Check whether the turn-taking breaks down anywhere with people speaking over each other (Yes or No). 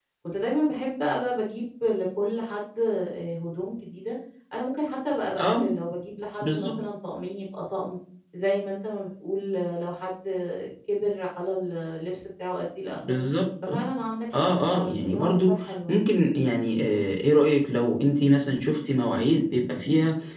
Yes